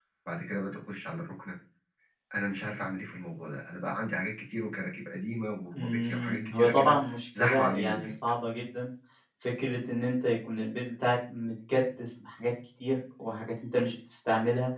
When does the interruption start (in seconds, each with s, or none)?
5.7 s